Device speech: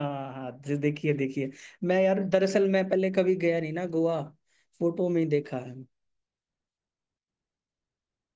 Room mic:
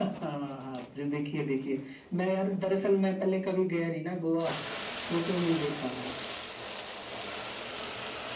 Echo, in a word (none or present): present